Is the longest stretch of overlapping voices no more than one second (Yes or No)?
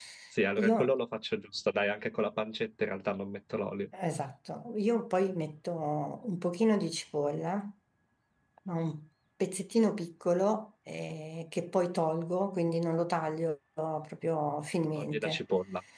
Yes